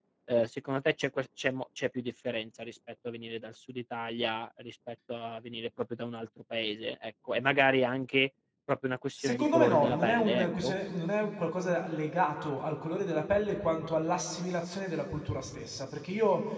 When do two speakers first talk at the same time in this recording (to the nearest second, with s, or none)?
9 s